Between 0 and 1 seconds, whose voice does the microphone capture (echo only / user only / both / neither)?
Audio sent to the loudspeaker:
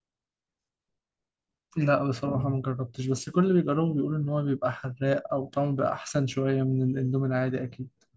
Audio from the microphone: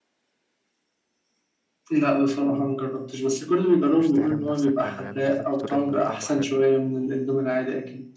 neither